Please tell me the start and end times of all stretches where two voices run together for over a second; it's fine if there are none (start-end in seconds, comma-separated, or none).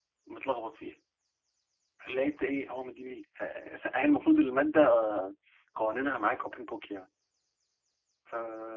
none